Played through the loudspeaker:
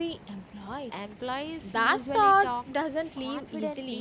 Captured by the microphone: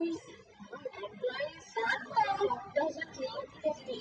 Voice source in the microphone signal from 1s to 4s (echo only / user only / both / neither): echo only